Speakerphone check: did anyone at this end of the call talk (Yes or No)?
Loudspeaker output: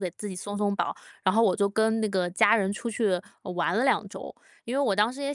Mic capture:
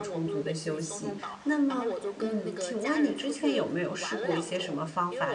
Yes